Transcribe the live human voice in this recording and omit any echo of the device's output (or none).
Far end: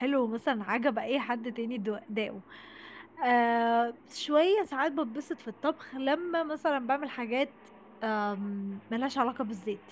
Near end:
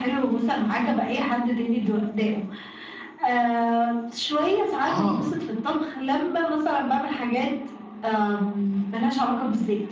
آه.